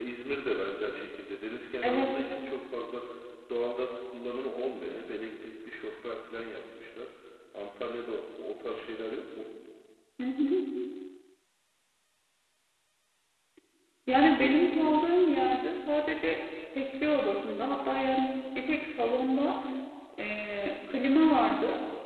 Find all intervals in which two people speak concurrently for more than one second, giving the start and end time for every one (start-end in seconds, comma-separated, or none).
none